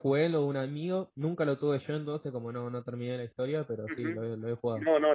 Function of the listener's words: taking over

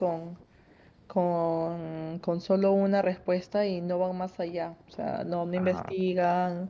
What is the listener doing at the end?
listening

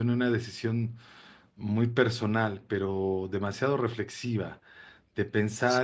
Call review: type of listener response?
listening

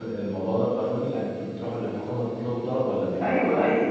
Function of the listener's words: taking over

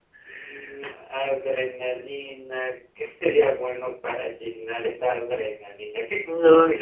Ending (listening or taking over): listening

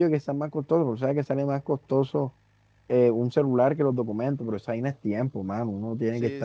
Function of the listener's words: listening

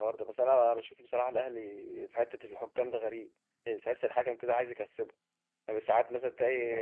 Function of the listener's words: listening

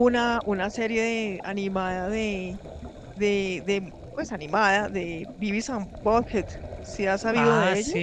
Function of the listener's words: taking over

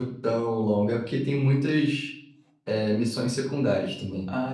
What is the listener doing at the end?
taking over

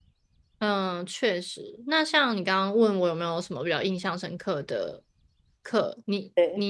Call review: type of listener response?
listening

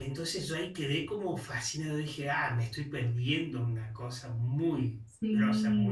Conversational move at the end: taking over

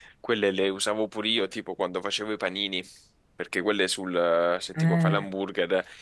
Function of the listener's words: listening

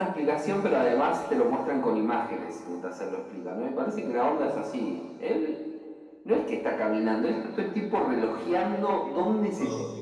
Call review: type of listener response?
listening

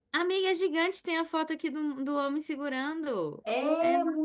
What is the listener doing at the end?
taking over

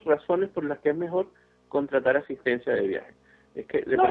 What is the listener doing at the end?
taking over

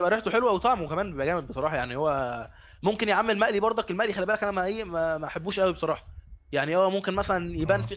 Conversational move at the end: listening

